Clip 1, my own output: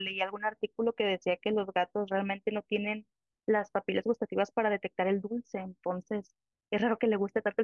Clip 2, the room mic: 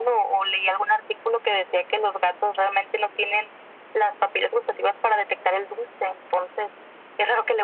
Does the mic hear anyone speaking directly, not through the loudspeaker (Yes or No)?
No